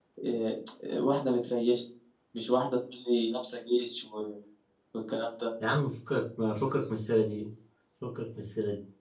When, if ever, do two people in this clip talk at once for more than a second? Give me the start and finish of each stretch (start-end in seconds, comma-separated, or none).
none